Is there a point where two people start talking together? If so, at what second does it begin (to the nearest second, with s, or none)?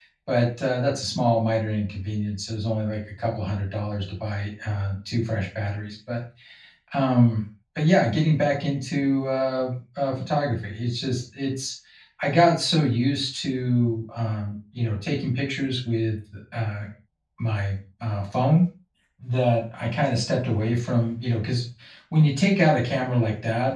none